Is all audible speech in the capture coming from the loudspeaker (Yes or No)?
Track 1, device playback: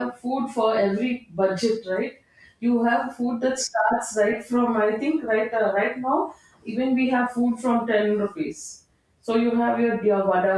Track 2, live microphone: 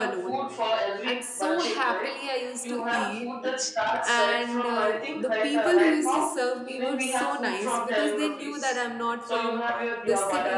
No